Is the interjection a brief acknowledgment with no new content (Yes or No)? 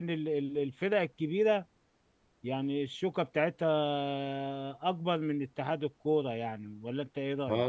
No